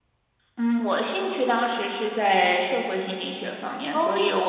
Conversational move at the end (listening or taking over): listening